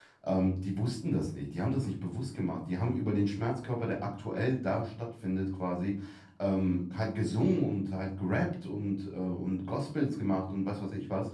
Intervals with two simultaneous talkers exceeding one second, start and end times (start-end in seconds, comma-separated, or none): none